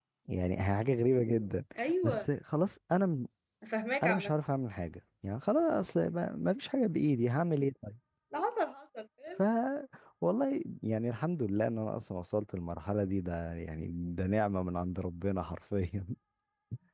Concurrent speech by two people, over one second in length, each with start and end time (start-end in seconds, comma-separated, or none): none